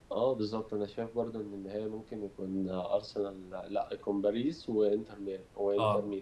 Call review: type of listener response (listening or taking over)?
taking over